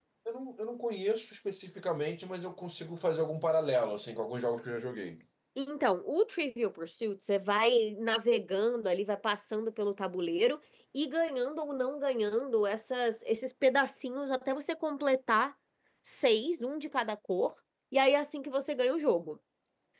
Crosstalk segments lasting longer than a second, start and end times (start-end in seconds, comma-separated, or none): none